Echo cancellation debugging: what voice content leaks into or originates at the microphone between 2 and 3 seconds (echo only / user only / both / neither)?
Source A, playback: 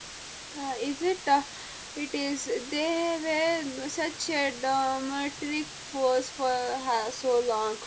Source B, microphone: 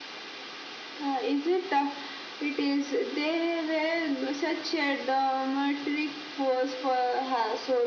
echo only